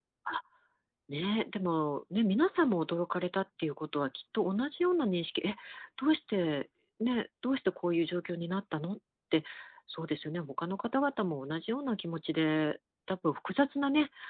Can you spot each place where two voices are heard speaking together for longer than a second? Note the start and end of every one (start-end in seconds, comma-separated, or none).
none